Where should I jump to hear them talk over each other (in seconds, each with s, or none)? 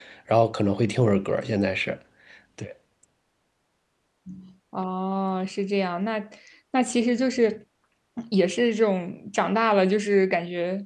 none